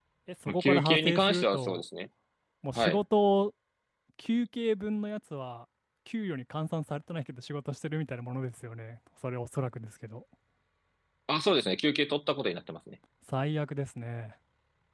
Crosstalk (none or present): present